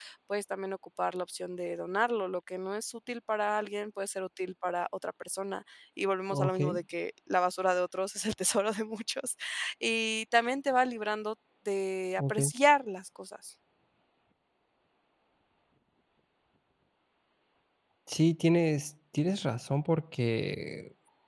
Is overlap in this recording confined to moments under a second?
Yes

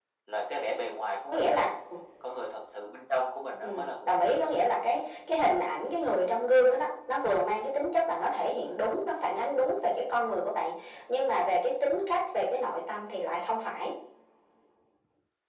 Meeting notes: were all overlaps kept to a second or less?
Yes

